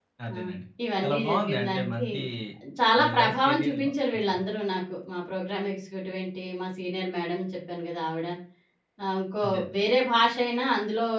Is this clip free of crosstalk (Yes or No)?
No